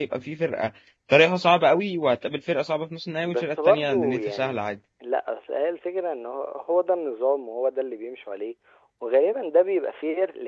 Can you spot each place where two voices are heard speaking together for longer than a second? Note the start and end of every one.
3.2-4.6

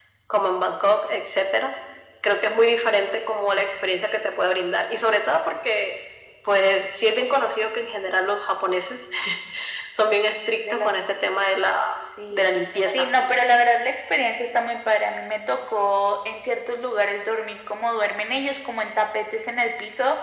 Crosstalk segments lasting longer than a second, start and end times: none

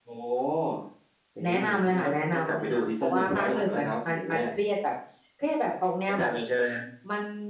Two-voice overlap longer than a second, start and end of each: 1.4-4.4

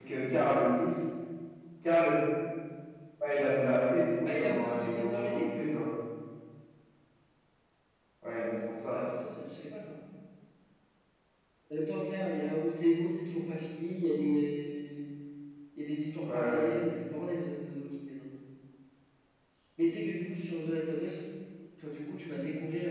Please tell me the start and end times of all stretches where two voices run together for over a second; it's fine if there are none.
4.3-5.5

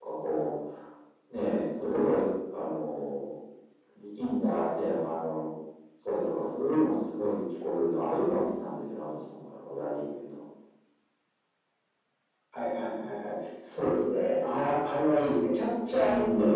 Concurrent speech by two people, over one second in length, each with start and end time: none

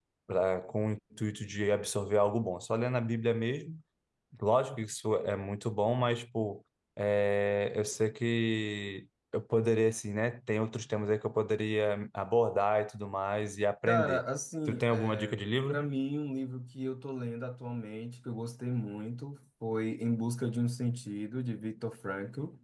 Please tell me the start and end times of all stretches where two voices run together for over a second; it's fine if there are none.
14.7-15.9

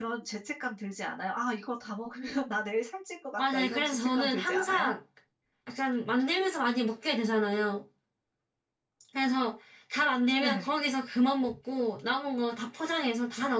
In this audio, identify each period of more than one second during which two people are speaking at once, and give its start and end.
3.4-4.9

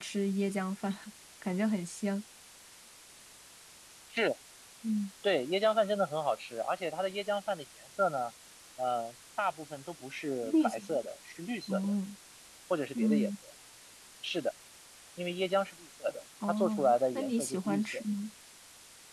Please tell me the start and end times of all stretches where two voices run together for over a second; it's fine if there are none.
16.5-18.0

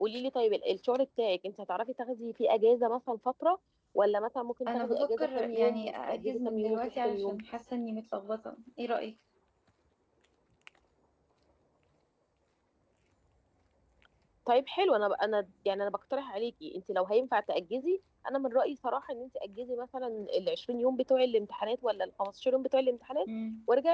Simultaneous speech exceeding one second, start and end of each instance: 4.7-7.4

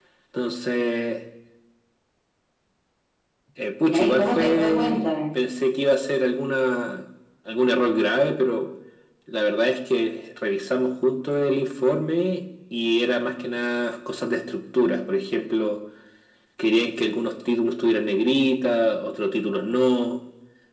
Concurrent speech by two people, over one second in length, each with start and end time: 3.8-5.1

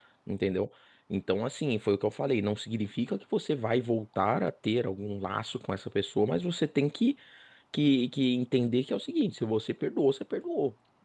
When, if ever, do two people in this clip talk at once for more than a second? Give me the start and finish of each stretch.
none

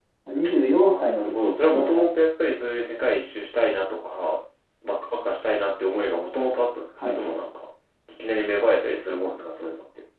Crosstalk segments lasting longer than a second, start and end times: 0.8-2.0

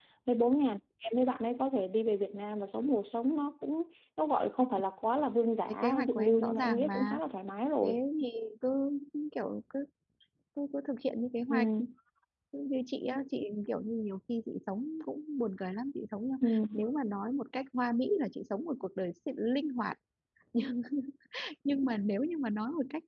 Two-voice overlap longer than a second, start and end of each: 5.7-7.2

